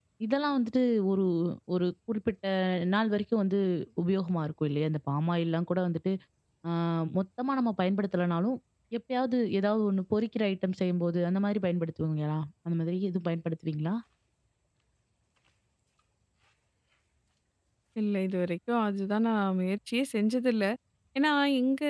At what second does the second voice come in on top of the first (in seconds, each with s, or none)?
none